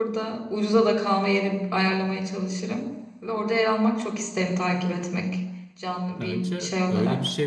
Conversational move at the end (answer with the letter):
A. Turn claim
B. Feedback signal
A